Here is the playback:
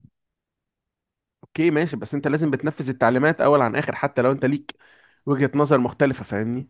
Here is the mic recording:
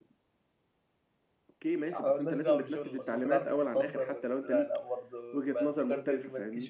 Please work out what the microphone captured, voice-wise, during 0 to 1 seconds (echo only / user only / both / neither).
neither